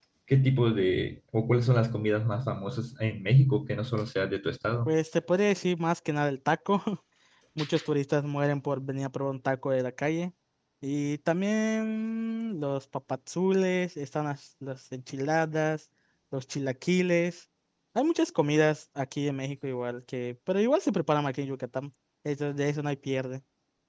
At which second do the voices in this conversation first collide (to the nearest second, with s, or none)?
none